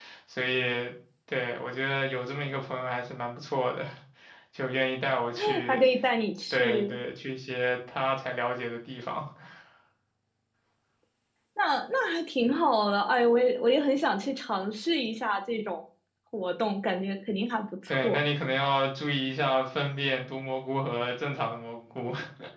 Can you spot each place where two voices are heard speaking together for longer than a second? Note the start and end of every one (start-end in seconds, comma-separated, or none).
none